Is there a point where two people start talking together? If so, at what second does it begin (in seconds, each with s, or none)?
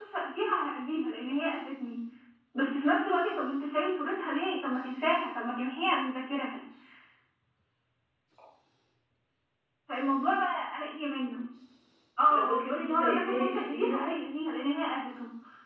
12.3 s